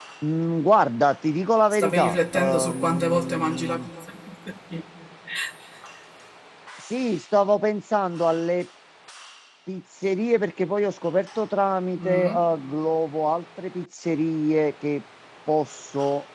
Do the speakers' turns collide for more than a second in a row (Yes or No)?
Yes